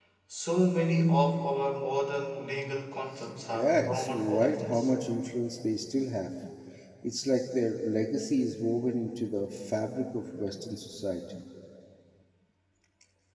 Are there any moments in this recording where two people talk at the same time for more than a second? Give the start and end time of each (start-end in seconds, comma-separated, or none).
3.5-4.9